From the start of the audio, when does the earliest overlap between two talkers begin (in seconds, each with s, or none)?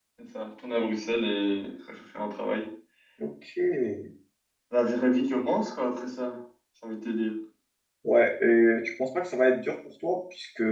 none